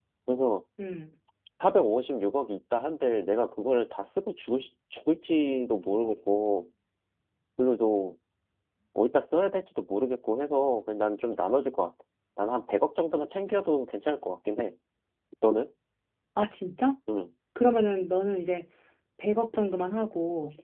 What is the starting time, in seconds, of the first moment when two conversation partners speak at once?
none

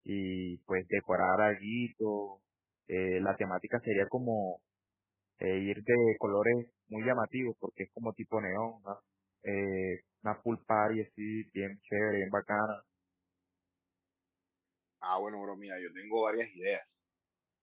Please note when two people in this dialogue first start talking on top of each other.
none

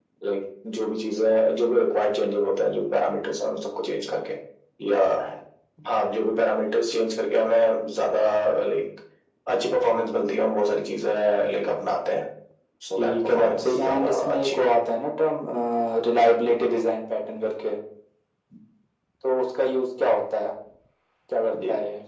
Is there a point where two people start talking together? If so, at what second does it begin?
13.0 s

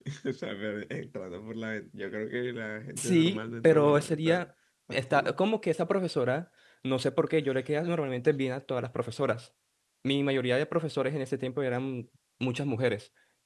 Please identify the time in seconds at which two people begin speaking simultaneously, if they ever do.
3.0 s

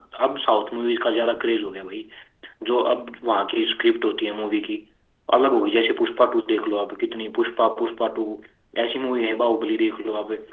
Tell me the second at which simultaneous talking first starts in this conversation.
none

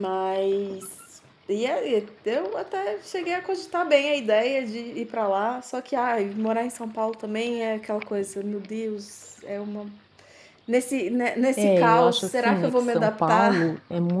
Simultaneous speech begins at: 11.6 s

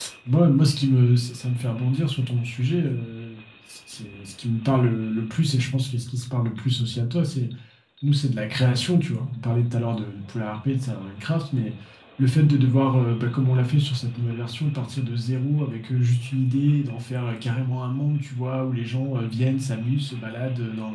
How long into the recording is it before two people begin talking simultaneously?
none

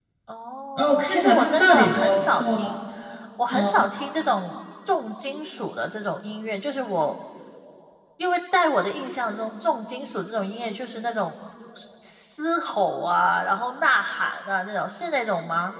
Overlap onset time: 0.8 s

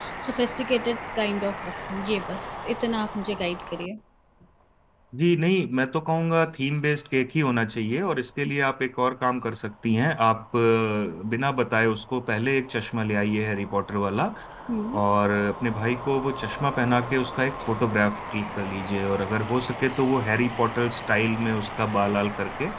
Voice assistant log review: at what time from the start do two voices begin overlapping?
none

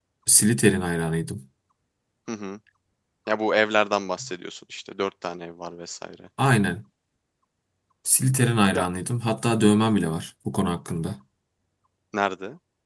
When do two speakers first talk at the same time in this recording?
none

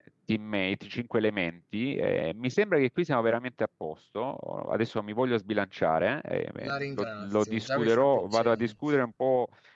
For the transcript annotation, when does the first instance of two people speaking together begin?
6.6 s

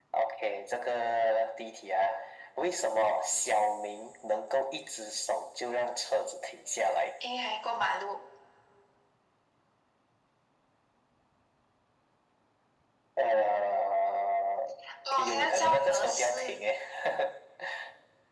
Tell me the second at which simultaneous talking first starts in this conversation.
15.2 s

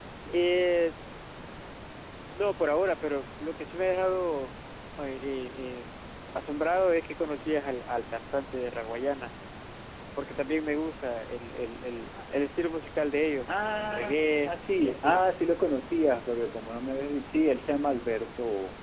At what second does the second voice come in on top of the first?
13.5 s

